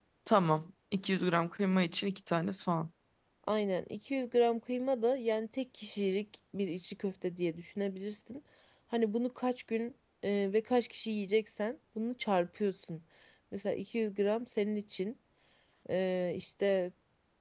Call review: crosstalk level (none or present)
none